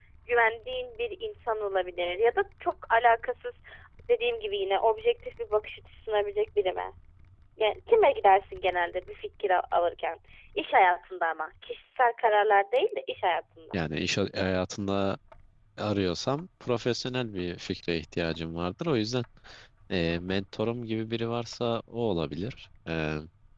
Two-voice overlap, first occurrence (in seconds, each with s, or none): none